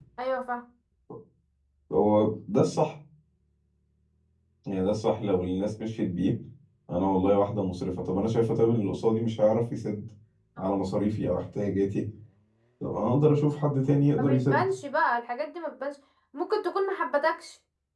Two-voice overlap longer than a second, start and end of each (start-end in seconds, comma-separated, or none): none